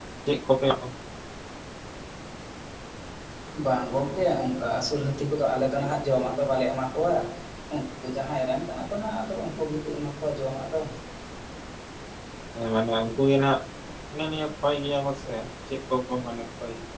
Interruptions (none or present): none